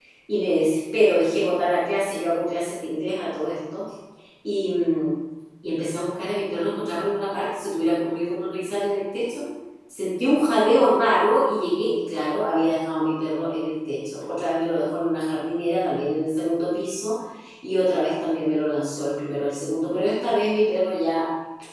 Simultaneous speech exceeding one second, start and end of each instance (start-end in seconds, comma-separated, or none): none